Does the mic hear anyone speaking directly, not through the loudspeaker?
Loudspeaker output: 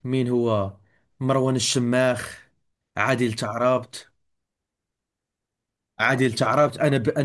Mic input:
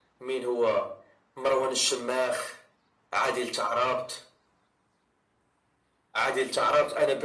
No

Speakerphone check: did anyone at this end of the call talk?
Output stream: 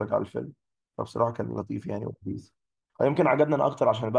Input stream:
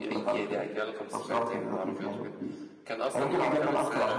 Yes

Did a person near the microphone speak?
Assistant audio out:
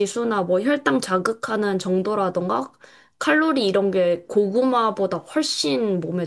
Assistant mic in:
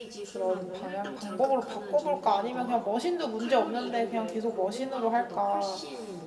Yes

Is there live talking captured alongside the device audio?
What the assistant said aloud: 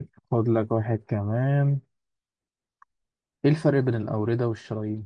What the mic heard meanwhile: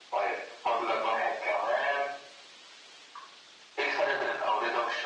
No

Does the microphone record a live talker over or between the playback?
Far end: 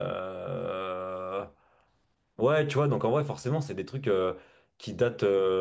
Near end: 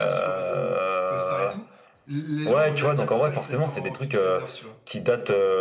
Yes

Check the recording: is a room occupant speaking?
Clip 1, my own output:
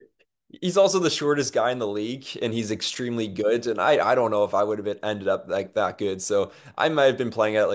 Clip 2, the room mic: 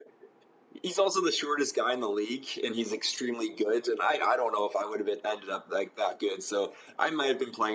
No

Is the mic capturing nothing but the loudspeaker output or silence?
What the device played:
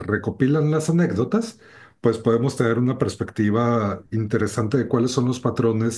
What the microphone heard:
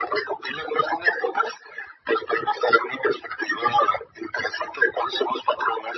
Yes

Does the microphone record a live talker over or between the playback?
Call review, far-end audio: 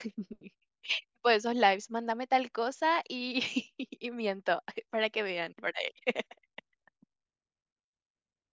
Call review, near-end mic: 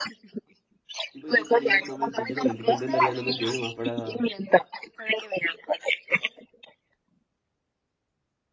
Yes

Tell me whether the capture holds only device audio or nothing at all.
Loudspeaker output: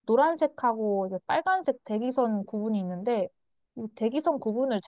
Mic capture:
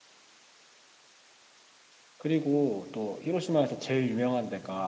No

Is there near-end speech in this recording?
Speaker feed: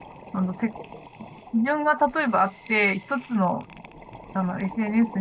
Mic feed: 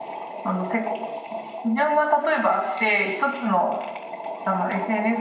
No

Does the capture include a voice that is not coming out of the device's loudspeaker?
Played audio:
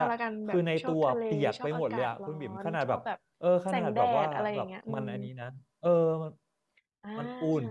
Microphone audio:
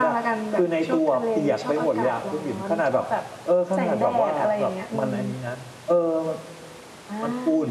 No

